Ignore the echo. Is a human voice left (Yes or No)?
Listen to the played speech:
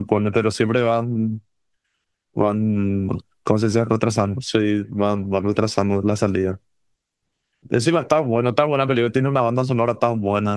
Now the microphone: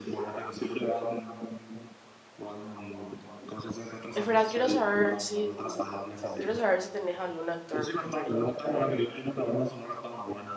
Yes